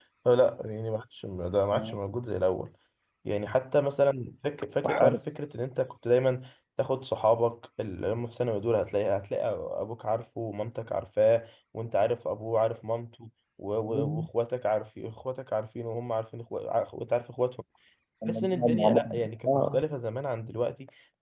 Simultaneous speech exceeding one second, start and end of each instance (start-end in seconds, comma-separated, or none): 18.3-19.8